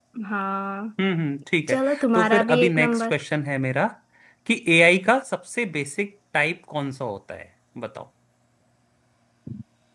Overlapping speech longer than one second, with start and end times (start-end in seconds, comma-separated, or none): 1.7-3.1